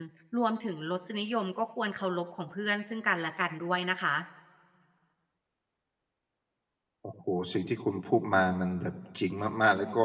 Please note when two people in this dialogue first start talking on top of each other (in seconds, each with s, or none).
none